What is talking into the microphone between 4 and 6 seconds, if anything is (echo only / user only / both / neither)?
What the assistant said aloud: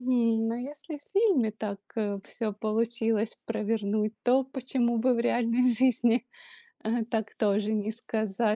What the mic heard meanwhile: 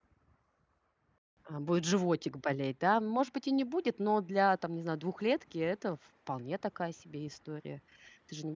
user only